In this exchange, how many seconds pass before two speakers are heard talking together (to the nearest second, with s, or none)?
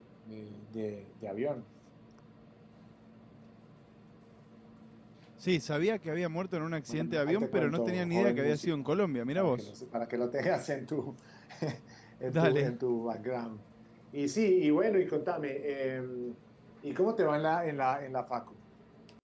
7 s